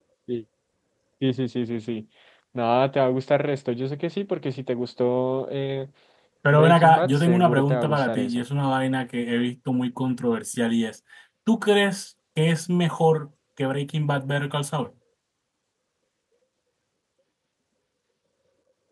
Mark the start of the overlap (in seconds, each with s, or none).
6.5 s